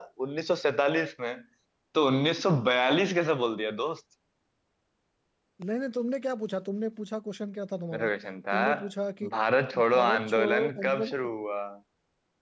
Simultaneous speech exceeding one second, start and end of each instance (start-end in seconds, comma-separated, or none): 9.9-11.3